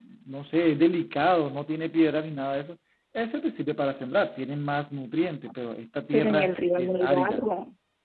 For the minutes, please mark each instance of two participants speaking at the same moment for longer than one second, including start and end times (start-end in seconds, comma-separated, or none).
6.1-7.4